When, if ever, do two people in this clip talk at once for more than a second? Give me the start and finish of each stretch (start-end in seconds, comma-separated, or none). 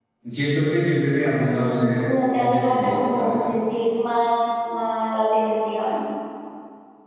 1.4-3.4